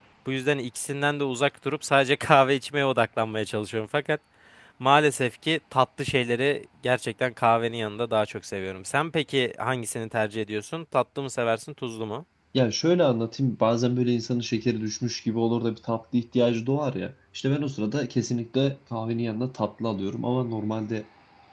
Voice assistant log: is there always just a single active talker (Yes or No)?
Yes